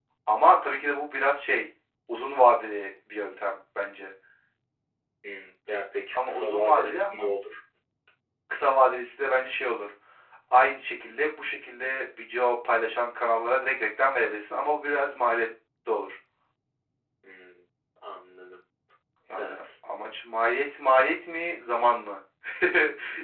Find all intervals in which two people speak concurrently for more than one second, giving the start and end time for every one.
6.1-7.3

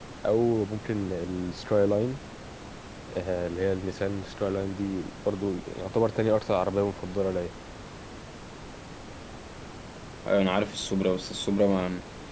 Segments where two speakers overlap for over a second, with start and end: none

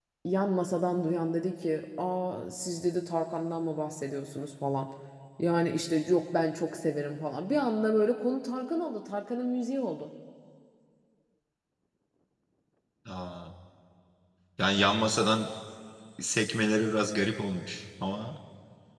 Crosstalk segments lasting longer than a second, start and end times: none

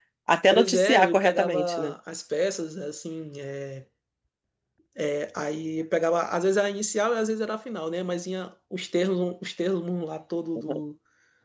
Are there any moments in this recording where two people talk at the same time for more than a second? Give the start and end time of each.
0.5-1.9

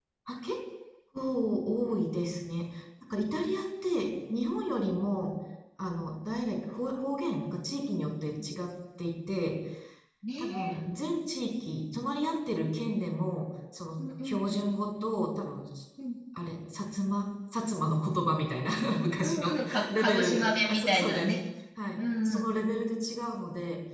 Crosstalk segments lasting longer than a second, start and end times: 19.2-21.3

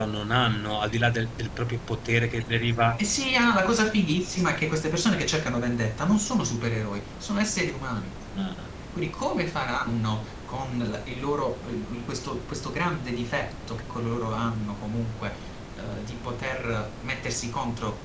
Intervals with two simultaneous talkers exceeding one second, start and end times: none

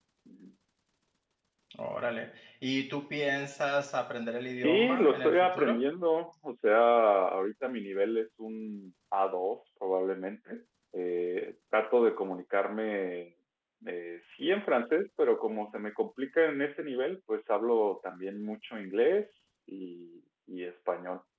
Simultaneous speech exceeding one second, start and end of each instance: 4.5-5.8

